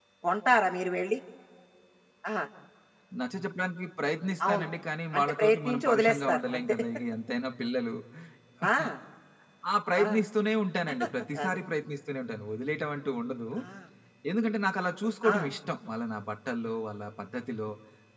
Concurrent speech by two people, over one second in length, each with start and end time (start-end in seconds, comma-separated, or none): 5.2-6.8